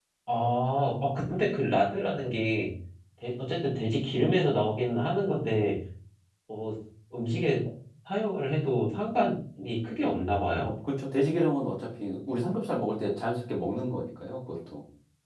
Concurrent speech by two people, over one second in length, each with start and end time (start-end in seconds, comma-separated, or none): none